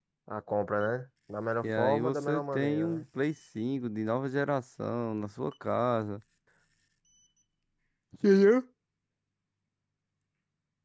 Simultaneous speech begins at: 1.6 s

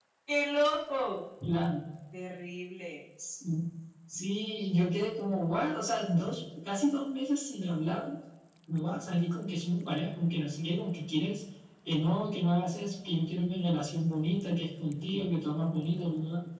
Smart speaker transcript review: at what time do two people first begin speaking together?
none

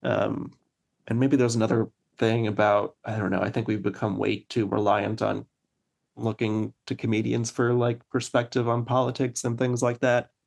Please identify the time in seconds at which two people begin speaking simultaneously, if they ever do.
none

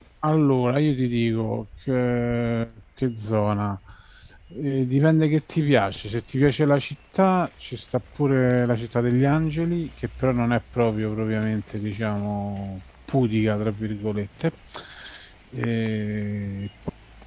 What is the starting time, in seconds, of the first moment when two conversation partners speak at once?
none

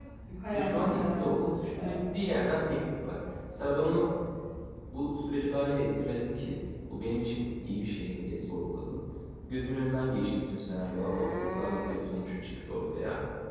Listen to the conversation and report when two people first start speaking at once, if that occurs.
0.5 s

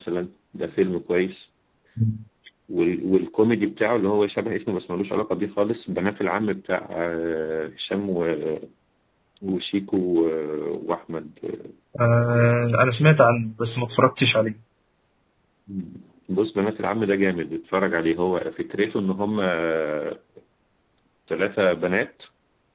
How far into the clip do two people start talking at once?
none

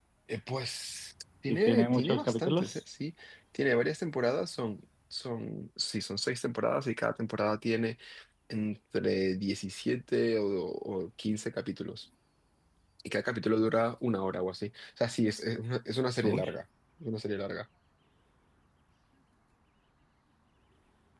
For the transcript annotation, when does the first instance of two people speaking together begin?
1.5 s

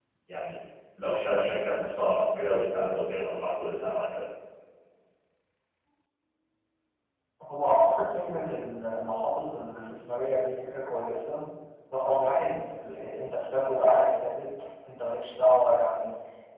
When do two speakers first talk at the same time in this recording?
none

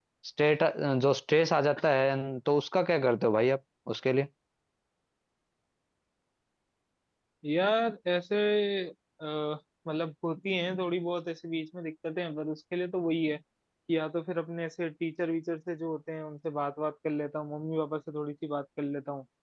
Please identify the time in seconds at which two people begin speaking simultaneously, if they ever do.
none

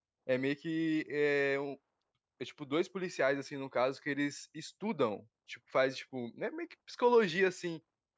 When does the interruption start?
none

